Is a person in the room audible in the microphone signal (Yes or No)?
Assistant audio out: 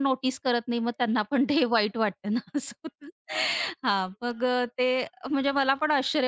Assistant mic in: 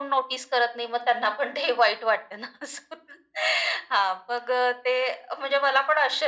No